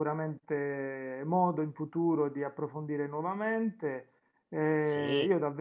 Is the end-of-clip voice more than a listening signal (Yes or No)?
No